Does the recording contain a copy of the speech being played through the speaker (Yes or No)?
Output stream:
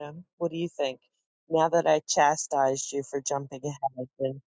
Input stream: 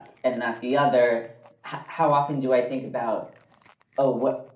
No